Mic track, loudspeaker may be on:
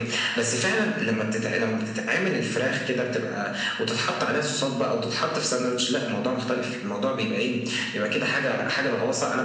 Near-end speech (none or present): none